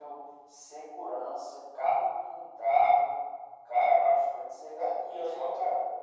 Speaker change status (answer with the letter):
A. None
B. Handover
B